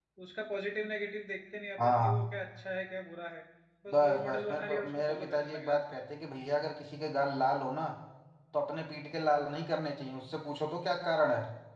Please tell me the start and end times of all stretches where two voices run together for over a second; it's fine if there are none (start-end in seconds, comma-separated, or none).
3.9-6.0